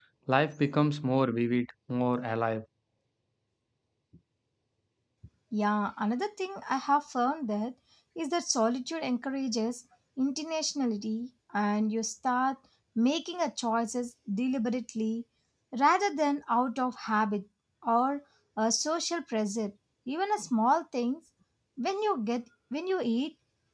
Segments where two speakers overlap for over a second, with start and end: none

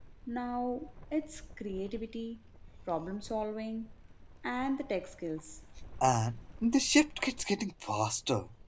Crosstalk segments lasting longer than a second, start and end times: none

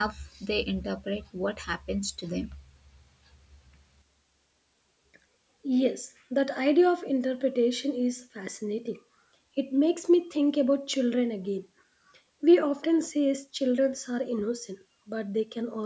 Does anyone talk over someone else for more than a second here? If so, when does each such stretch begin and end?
none

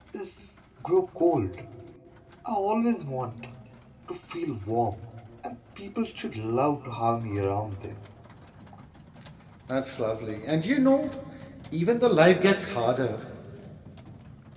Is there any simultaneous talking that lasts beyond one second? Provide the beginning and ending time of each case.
none

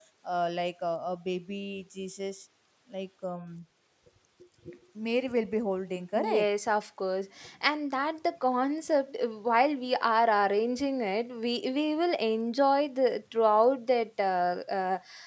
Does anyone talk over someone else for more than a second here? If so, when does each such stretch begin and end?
none

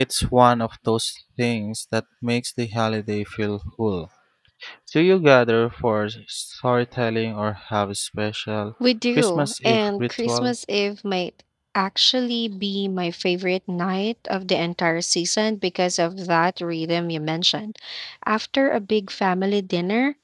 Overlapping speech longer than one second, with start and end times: 9.2-10.5

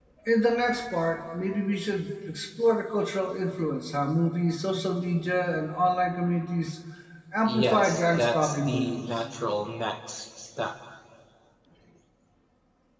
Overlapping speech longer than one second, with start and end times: 7.4-9.0

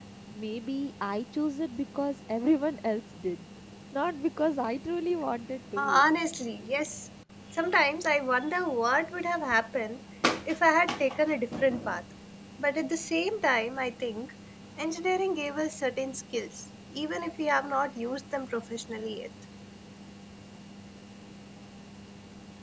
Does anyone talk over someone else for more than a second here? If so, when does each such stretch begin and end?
none

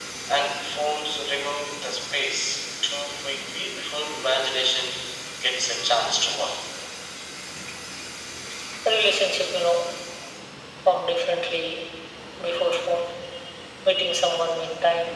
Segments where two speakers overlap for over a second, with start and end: none

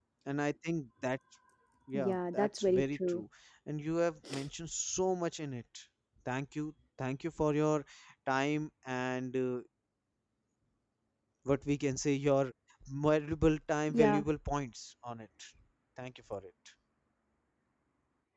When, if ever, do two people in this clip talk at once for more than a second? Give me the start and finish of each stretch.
1.9-3.2

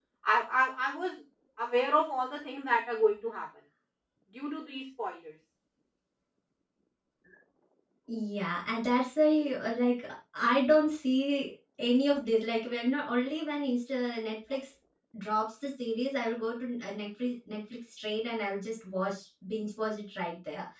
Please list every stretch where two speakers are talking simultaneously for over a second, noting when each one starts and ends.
none

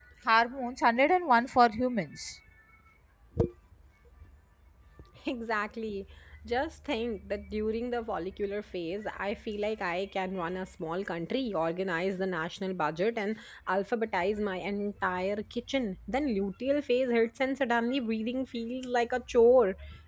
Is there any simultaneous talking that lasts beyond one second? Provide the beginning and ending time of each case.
none

